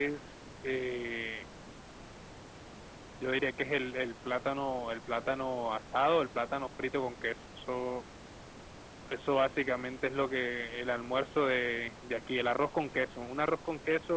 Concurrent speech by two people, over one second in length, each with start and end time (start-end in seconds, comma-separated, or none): none